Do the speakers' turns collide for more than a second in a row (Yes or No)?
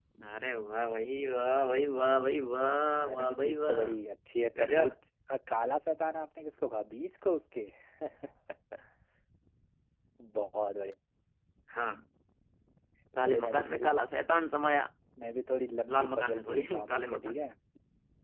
Yes